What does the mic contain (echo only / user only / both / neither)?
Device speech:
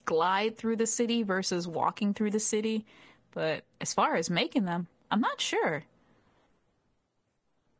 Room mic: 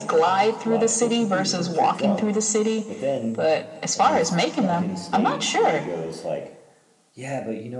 both